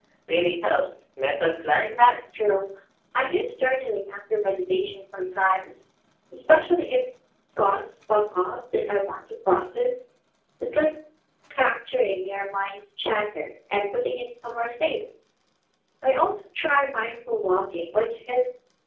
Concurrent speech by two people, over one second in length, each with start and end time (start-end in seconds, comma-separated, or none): none